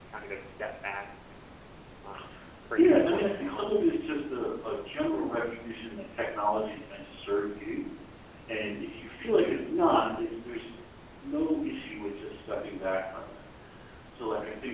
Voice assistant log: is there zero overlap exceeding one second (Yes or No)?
No